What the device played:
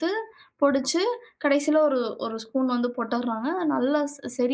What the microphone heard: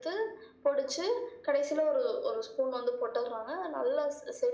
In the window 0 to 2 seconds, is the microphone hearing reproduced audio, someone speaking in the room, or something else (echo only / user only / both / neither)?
echo only